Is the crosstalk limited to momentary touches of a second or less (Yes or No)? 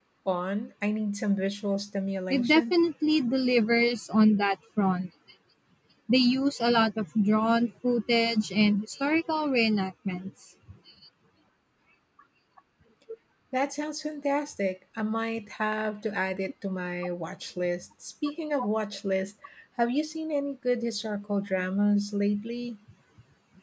Yes